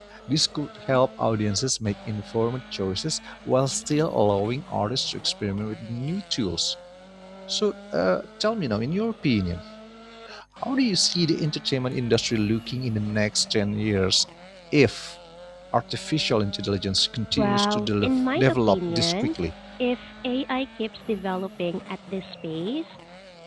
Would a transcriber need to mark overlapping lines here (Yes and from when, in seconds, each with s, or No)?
Yes, from 17.3 s